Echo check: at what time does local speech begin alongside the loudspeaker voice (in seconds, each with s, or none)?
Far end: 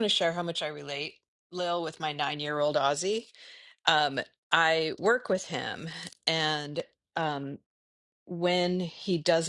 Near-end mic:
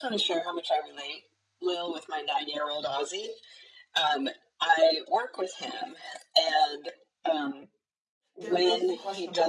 8.4 s